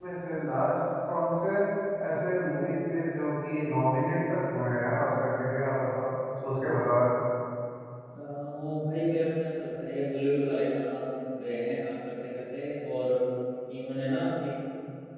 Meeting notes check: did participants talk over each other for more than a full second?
No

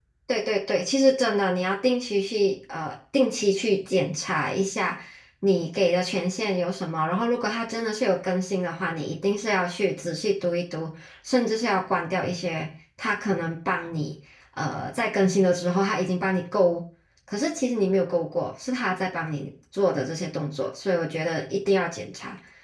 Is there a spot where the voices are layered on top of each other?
No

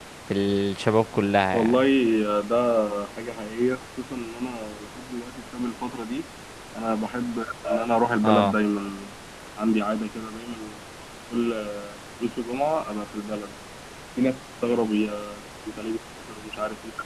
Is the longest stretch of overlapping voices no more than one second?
Yes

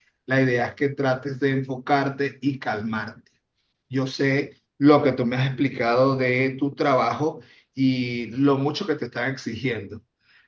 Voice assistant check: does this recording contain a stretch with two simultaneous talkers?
No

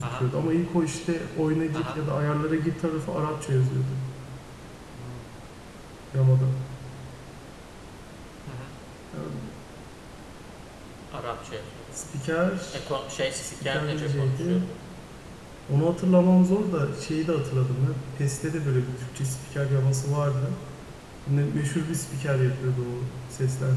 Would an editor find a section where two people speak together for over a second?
Yes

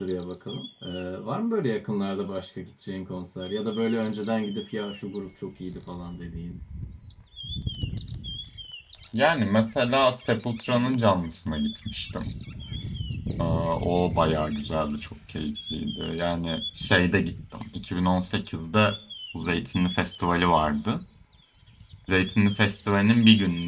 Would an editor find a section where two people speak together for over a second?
No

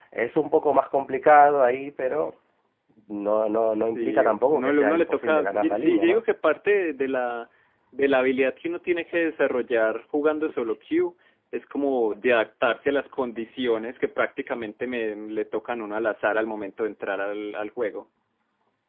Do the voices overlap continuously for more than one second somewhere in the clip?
Yes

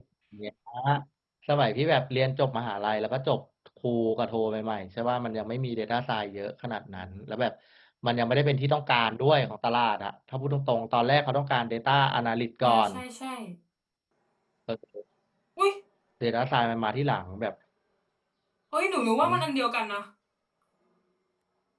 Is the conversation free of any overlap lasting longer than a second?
Yes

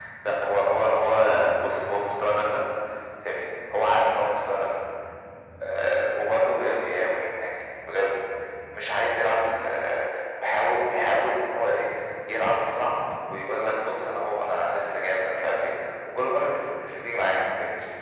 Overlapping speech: No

